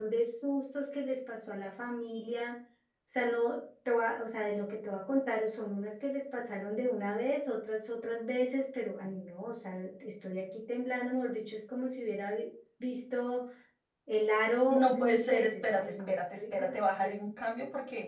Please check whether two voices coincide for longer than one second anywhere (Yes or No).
Yes